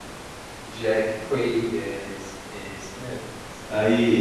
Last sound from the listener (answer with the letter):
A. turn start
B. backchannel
A